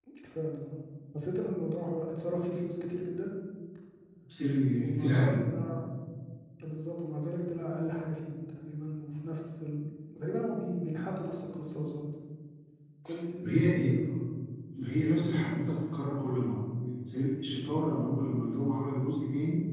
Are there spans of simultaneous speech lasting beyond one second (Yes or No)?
No